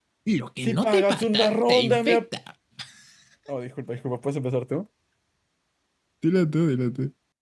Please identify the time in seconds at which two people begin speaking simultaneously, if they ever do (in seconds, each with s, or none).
0.6 s